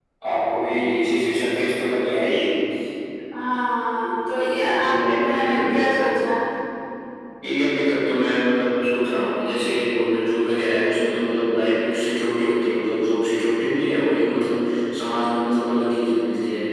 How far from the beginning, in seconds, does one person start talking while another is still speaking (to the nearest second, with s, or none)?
4 s